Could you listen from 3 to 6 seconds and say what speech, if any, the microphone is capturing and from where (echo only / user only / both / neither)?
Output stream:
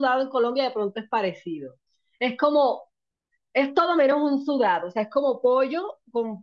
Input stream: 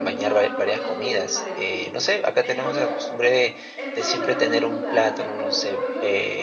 both